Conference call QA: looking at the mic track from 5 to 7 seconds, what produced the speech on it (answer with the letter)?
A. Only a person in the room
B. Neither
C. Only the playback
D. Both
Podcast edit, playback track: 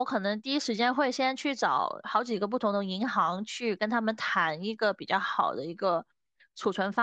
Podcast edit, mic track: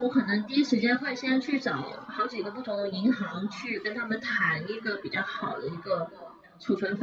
C